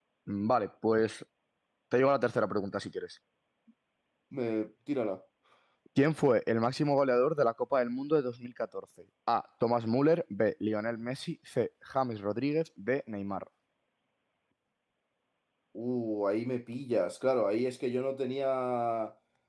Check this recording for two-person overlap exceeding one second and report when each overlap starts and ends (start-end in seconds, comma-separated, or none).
none